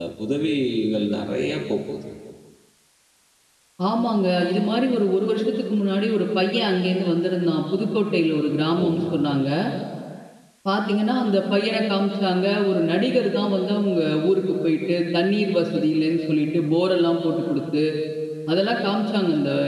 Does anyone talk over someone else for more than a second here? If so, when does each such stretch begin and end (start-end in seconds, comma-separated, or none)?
none